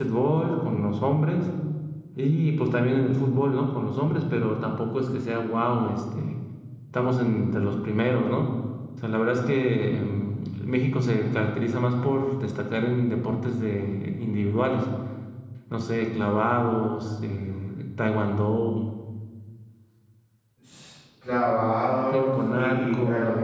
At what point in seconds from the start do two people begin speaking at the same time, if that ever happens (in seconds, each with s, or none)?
22.1 s